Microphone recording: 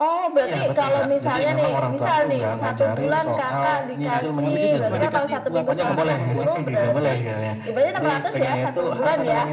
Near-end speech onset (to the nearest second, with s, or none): 4 s